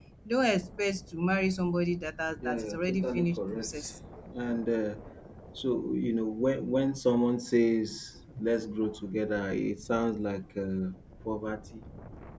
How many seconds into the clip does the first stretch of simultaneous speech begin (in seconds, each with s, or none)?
2.4 s